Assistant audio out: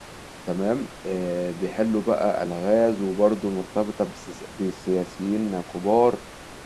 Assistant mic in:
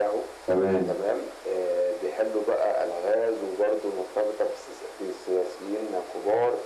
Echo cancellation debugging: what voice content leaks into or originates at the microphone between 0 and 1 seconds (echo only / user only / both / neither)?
both